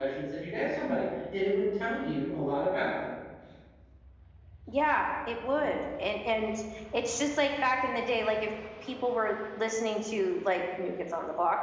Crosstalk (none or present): none